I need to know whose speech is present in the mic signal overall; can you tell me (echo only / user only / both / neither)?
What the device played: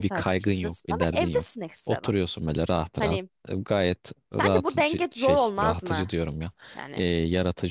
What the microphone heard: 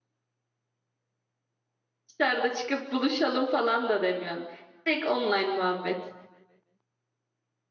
user only